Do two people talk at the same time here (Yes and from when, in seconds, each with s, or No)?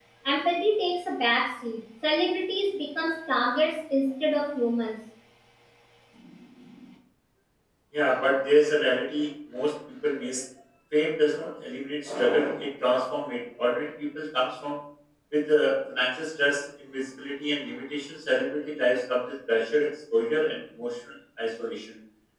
No